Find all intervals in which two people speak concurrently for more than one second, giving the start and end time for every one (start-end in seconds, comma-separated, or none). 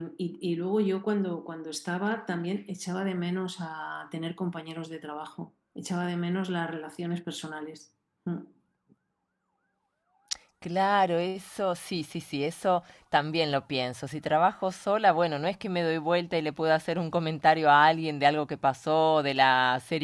none